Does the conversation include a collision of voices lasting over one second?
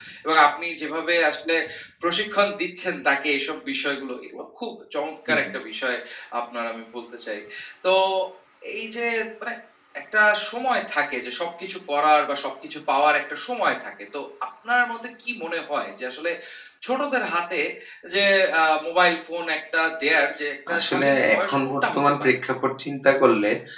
Yes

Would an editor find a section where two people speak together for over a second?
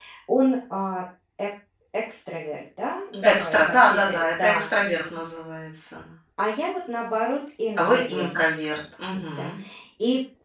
Yes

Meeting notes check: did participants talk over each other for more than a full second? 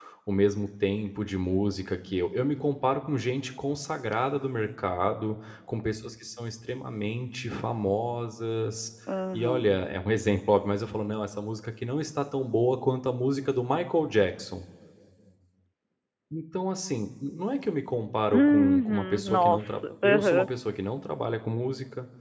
Yes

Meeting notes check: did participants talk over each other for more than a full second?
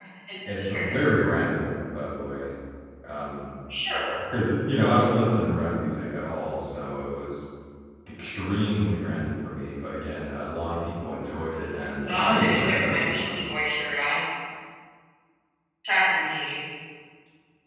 Yes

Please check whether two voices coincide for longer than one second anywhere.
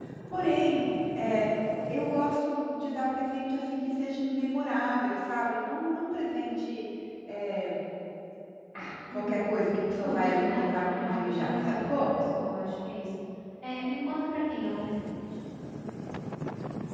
Yes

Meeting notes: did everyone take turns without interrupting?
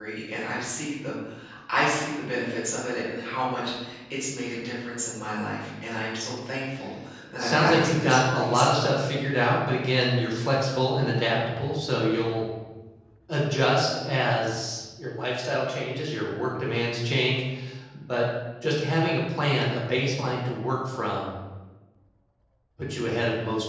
No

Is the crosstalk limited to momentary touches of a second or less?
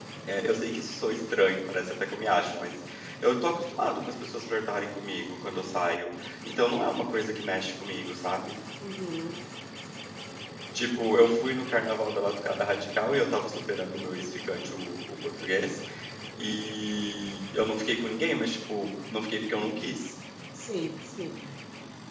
Yes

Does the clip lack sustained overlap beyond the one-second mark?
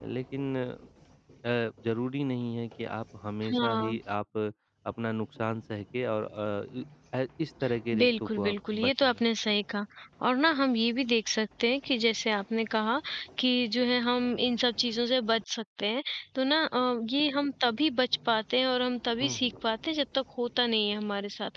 No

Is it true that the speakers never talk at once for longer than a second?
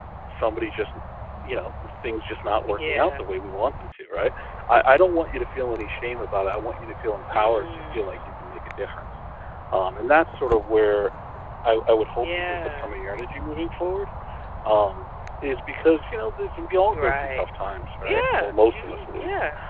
No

